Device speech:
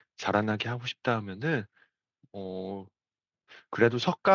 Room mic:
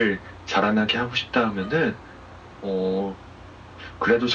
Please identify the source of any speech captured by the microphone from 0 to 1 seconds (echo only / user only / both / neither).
echo only